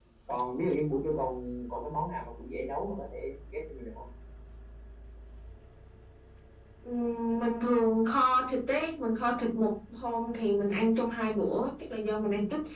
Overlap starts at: none

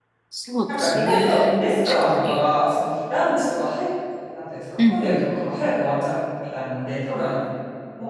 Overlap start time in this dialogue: 0.8 s

